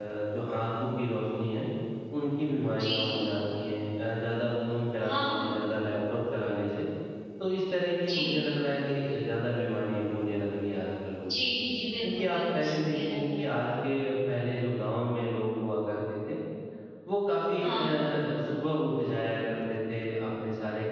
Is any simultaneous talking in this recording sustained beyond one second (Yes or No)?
Yes